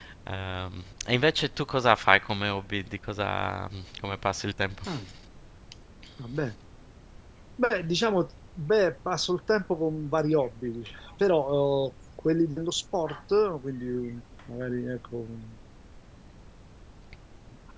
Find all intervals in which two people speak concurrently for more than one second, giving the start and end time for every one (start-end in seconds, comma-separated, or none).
none